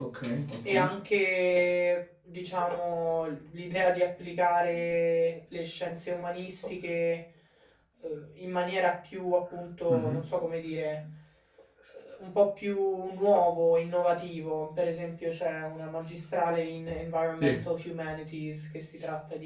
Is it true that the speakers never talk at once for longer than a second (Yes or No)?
Yes